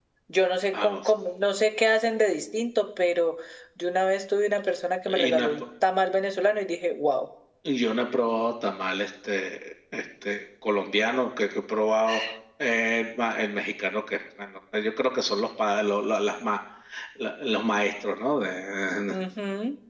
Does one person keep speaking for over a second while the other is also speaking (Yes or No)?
No